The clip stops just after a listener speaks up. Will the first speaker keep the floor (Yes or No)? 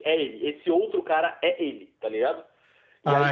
Yes